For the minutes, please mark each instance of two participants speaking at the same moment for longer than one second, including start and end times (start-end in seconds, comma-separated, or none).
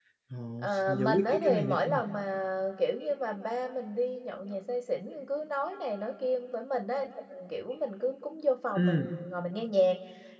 0.6-2.0